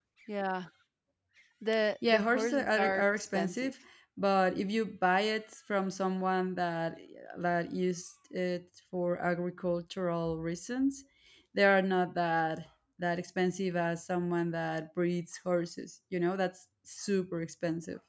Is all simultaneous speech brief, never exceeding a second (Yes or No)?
No